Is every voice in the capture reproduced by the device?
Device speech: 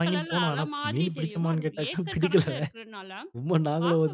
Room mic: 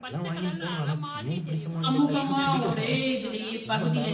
No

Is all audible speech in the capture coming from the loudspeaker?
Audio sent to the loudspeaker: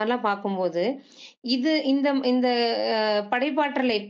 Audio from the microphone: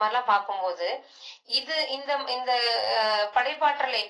Yes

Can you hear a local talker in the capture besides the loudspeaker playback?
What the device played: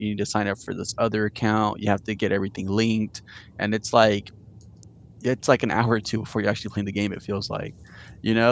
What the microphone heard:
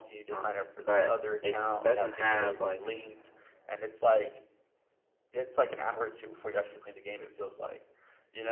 Yes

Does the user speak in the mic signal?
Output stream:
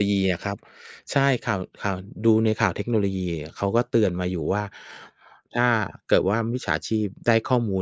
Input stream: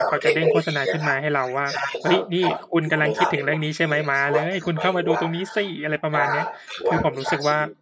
Yes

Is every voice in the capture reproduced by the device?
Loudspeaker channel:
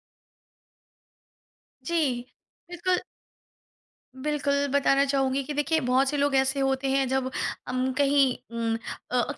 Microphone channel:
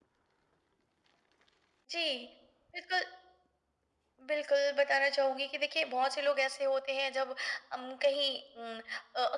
Yes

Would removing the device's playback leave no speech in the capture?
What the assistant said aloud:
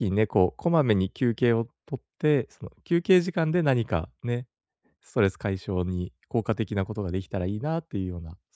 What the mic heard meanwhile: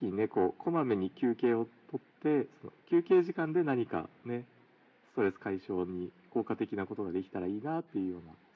Yes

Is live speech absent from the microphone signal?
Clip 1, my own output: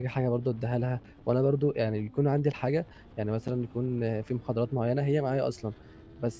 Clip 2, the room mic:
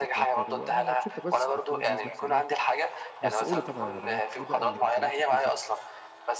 No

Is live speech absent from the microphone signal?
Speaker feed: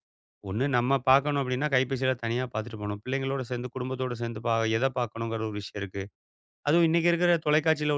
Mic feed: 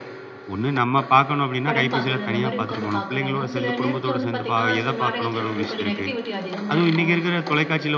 No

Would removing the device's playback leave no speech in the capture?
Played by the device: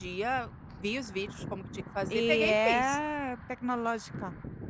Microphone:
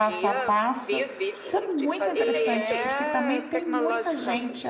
No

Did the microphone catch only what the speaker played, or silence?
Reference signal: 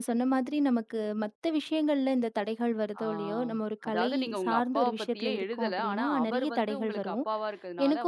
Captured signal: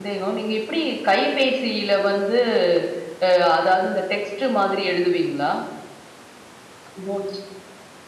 No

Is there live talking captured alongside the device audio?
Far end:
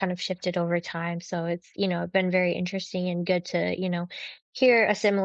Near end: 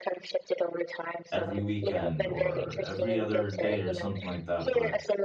Yes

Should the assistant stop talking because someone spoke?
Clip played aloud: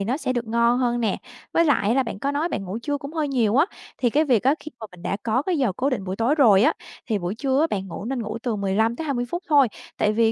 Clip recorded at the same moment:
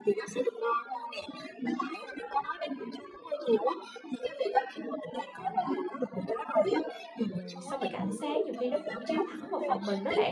Yes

